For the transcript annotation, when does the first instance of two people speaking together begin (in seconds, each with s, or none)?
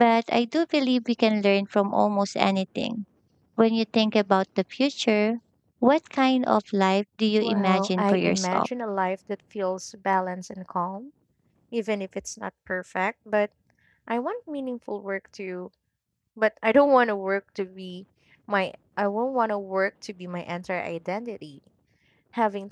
7.4 s